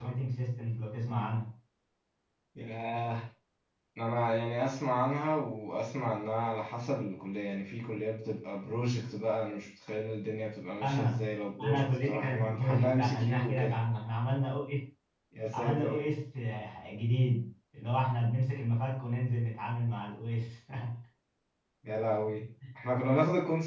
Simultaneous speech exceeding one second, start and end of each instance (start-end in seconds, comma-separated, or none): 11.6-13.8